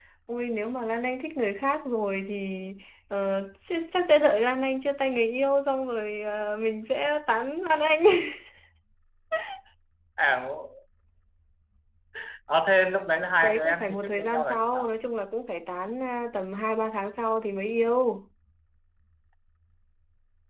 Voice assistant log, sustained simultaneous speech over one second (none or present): present